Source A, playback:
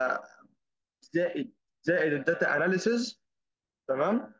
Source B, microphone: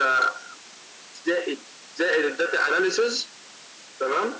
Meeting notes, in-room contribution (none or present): none